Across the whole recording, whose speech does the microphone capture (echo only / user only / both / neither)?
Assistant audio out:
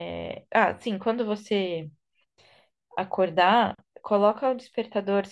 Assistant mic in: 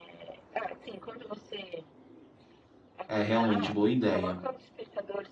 both